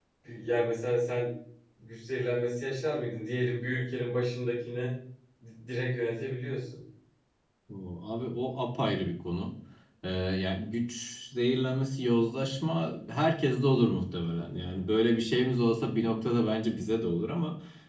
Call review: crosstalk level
none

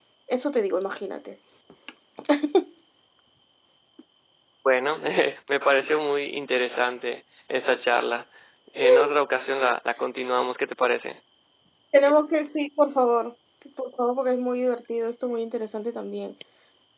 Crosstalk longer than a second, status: none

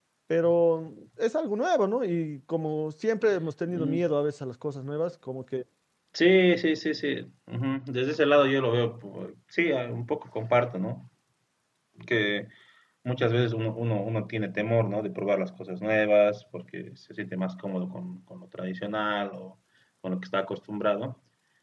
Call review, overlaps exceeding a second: none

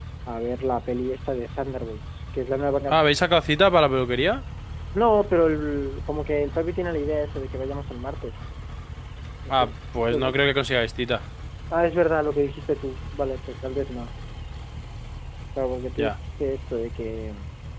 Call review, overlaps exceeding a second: none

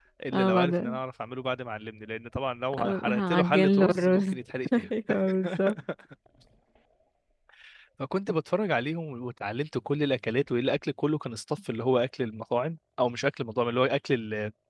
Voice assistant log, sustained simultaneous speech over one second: present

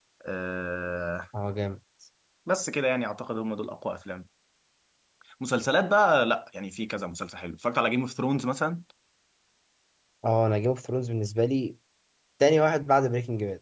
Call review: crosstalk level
none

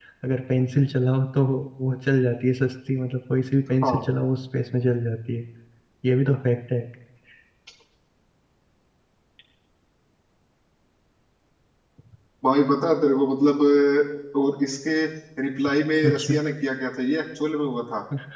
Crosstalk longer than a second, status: none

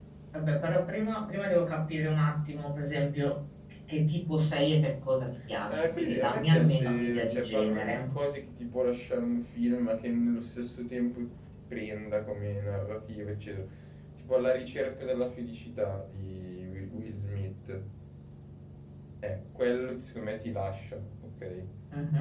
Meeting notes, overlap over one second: present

